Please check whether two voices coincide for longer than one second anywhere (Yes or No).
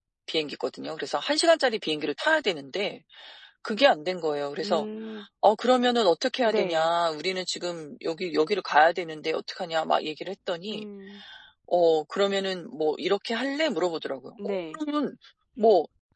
No